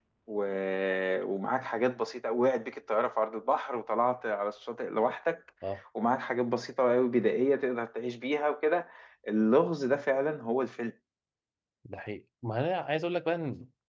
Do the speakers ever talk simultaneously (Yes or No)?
No